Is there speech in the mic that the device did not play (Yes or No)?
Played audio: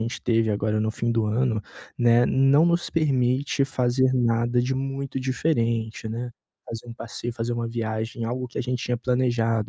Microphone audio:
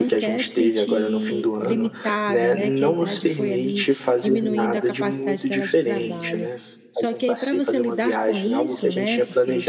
Yes